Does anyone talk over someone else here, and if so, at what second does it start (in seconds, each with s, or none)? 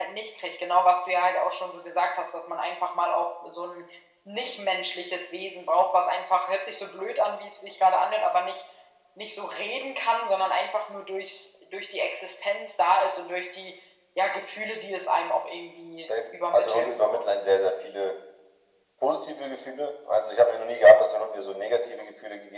16.0 s